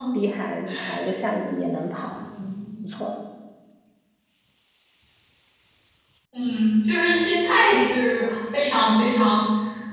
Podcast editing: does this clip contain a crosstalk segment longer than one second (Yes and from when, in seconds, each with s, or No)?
No